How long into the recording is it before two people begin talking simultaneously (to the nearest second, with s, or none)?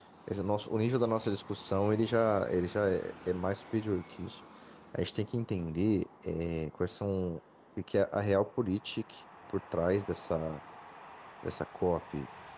none